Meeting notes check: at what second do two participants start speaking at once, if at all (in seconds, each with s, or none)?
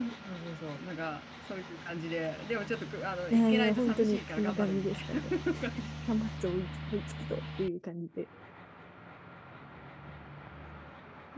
3.3 s